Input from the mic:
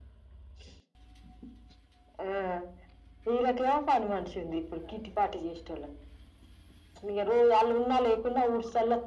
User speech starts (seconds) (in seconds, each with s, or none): none